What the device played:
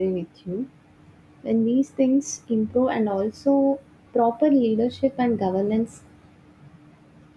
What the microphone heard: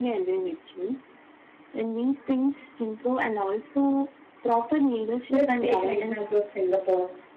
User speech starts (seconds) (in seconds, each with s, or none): 5.3 s